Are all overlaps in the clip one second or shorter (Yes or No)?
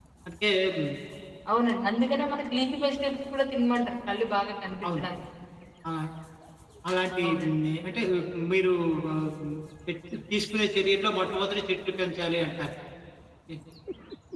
Yes